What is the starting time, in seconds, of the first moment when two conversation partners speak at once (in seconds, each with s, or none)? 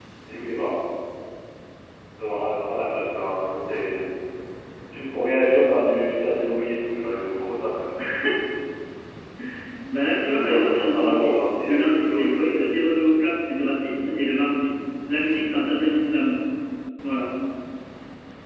10.2 s